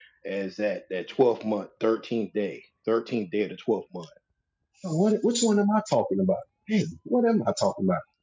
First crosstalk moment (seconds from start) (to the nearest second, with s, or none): none